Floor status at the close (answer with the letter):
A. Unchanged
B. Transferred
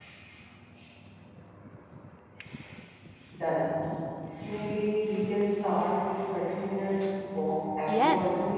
B